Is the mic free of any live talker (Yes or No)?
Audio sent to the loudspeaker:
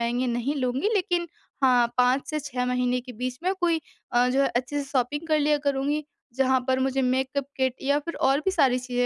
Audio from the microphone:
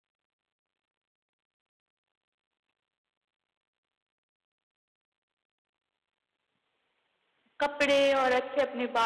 No